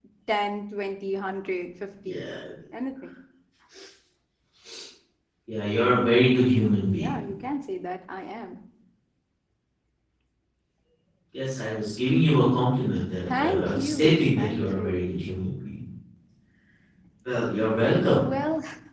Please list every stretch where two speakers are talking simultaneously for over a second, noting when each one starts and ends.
13.3-15.1

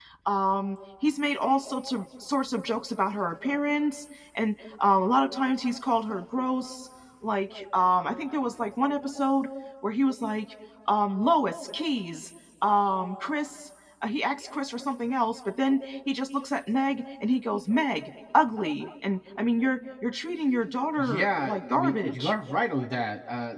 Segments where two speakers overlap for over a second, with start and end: 21.0-22.3

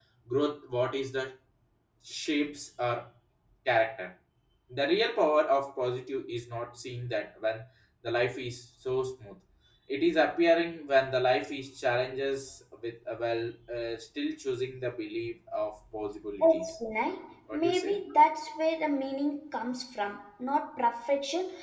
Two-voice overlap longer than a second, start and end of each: none

